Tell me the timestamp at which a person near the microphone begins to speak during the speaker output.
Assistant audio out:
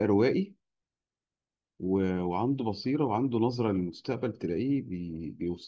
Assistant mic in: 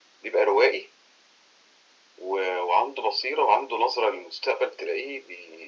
none

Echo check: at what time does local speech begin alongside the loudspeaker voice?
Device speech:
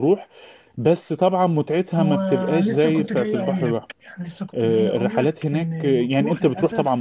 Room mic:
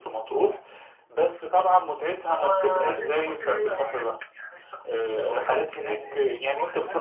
6 s

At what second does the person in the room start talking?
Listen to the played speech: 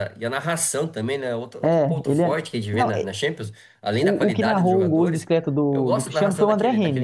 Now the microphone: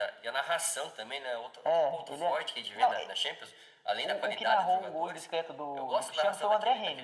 none

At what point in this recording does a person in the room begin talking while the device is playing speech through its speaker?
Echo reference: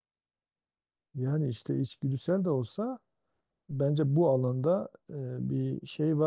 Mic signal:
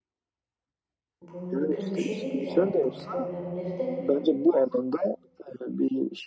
1 s

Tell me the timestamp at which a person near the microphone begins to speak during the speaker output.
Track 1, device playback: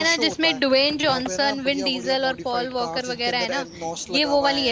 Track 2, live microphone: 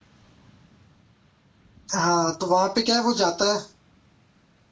2 s

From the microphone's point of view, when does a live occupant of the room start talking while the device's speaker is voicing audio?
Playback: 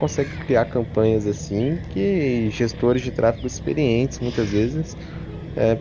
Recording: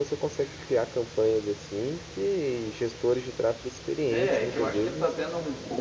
4 s

